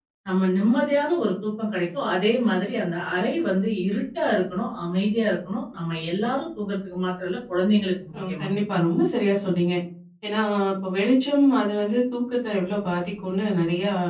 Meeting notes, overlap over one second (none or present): none